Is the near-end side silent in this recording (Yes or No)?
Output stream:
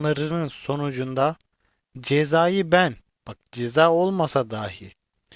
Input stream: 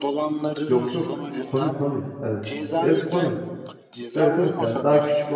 No